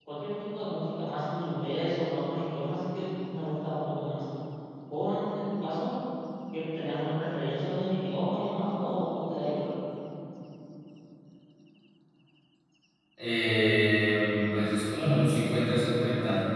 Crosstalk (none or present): none